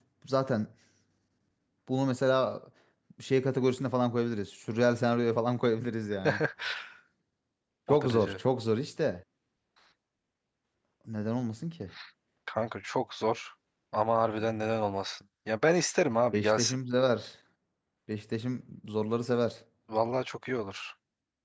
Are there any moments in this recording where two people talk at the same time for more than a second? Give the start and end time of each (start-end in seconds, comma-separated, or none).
none